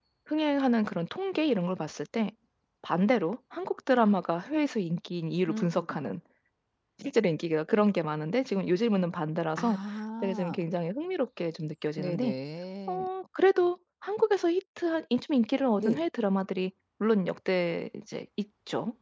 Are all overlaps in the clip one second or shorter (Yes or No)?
Yes